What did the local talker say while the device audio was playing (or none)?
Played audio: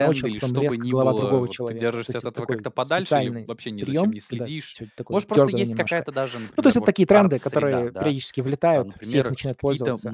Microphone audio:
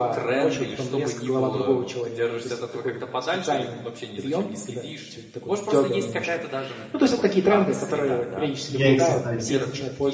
Я их создаю.